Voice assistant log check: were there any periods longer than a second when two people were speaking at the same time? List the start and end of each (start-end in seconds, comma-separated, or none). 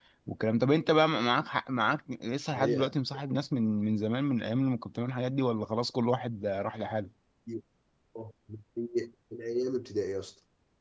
none